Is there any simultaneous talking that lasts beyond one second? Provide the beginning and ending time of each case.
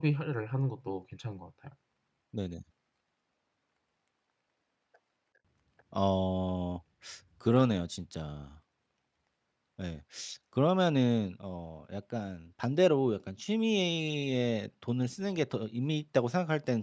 none

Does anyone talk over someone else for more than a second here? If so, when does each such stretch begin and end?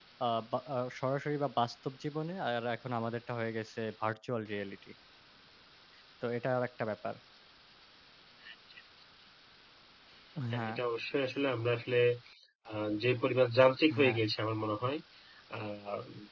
none

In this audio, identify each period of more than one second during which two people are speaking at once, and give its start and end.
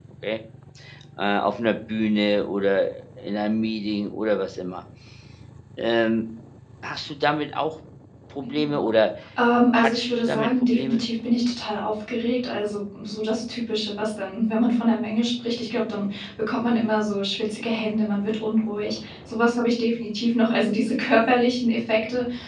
9.7-11.0

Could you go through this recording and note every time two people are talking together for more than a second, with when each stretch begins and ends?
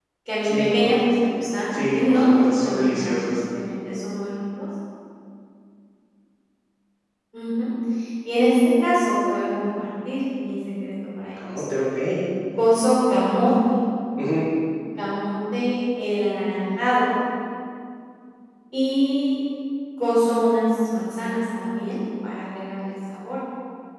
1.7-3.4

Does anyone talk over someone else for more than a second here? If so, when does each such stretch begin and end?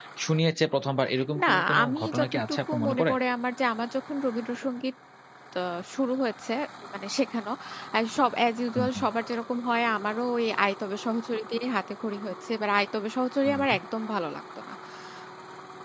1.4-3.1

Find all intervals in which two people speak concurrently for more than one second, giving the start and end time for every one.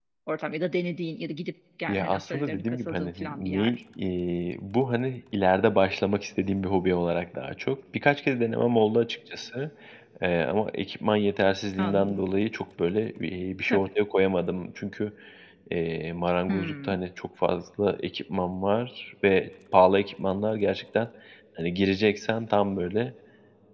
1.9-3.7

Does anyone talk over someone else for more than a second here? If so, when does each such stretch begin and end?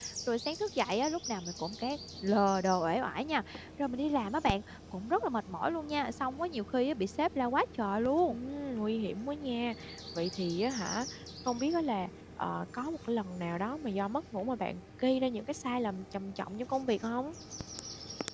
none

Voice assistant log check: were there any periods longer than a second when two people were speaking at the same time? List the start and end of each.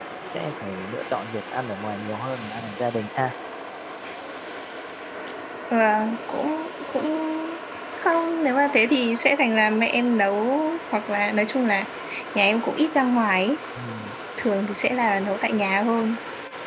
none

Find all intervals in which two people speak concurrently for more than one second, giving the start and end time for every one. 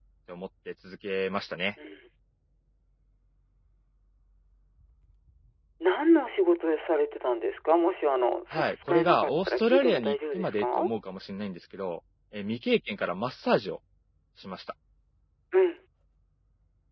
8.5-10.9

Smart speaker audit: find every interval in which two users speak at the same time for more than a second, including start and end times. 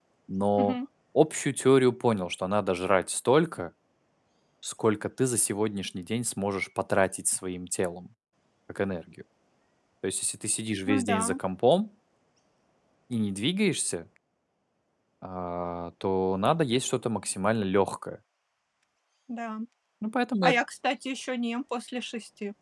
none

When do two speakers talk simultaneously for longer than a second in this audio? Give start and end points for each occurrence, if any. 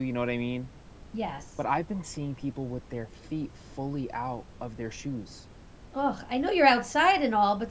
none

